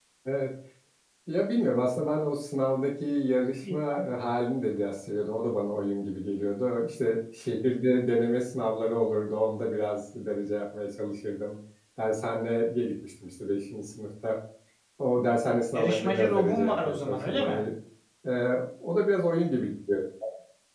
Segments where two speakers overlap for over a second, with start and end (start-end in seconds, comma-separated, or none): 15.7-17.6